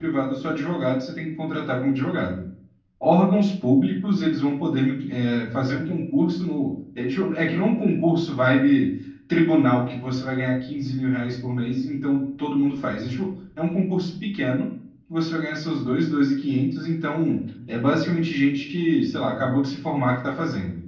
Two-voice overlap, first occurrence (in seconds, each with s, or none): none